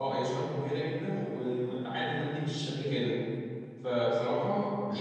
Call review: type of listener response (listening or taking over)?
taking over